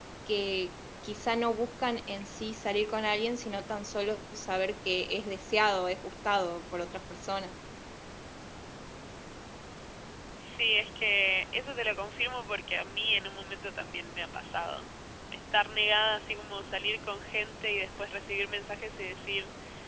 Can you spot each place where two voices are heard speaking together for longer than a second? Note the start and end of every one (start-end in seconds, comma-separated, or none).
none